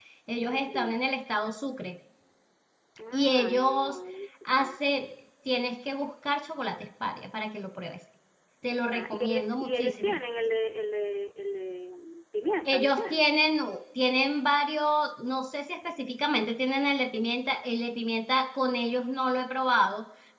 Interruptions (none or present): present